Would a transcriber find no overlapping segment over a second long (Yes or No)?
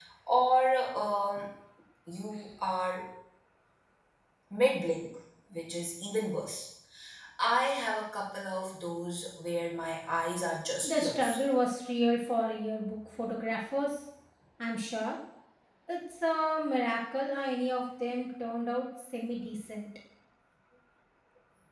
Yes